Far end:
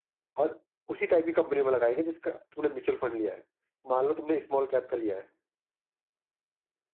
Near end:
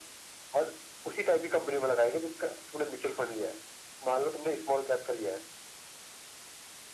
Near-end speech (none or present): none